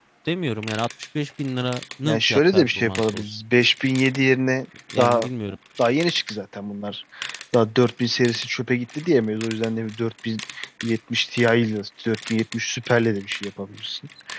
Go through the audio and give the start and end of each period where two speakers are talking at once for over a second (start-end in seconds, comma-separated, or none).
2.0-3.4